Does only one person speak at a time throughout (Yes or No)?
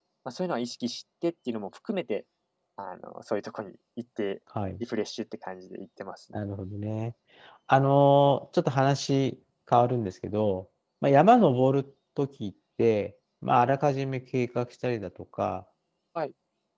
Yes